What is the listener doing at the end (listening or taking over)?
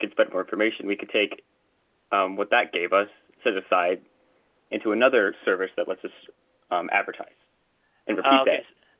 taking over